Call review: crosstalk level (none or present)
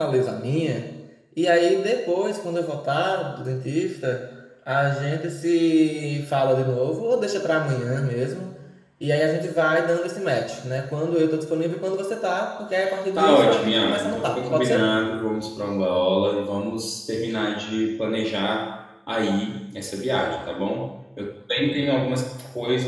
present